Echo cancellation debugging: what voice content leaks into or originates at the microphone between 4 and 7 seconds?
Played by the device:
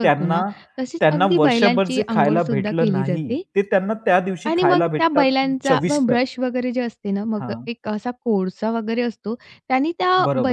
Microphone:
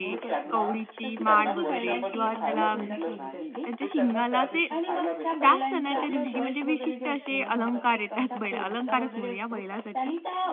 both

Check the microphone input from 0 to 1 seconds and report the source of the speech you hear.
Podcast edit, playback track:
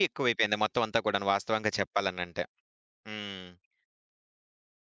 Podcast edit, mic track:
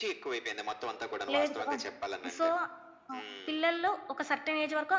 echo only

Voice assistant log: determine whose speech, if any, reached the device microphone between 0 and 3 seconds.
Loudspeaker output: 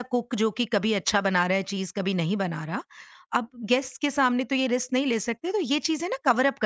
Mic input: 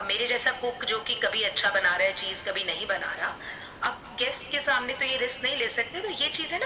echo only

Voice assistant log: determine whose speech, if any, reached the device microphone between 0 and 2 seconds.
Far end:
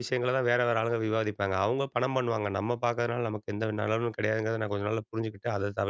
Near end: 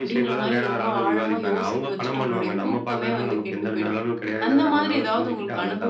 both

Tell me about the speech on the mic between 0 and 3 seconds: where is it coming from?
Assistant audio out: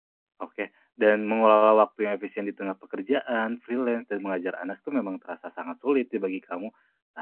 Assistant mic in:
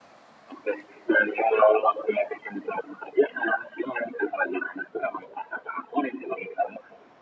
echo only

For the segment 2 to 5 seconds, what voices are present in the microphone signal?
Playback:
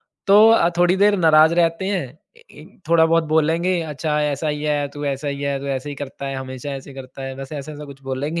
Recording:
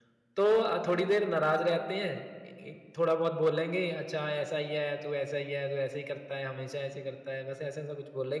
echo only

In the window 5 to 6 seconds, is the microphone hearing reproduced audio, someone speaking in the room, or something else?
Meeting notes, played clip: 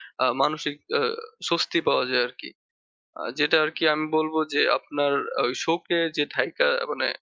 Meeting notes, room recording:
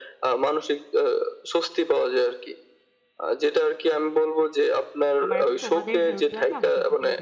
both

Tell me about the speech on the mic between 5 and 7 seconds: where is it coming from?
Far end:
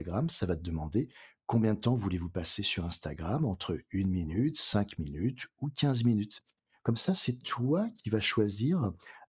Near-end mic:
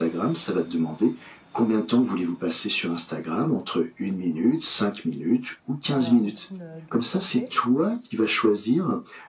both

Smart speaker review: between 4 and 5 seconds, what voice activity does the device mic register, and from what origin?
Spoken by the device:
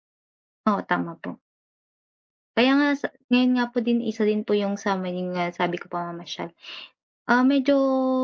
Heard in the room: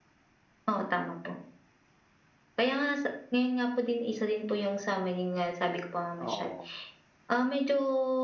echo only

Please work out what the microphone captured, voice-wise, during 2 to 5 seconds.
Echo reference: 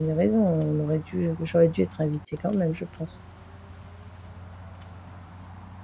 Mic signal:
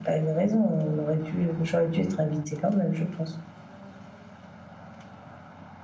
echo only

